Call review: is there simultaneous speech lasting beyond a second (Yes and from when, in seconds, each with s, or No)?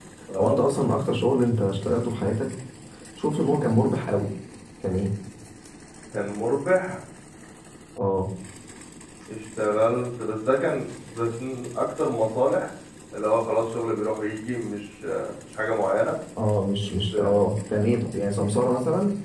No